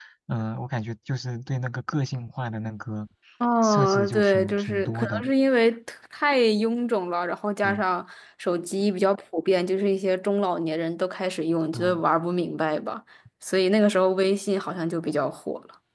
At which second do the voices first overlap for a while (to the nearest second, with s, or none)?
4 s